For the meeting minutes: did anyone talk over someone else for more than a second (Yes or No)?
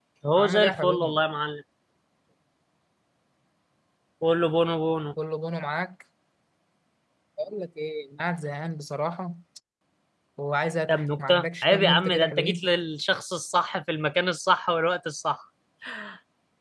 Yes